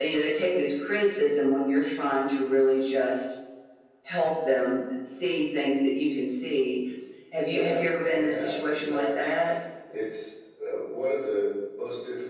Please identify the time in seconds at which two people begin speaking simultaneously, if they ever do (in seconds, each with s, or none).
7.4 s